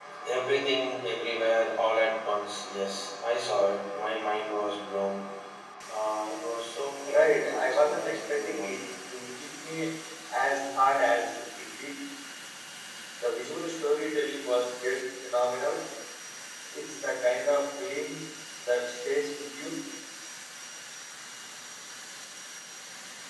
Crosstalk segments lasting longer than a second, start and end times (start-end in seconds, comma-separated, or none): 7.0-8.8